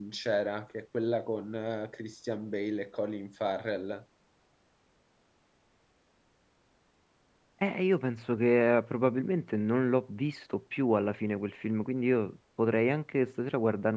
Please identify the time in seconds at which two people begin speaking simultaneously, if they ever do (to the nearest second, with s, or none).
none